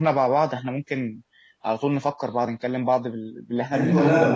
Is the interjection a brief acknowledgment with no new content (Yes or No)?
No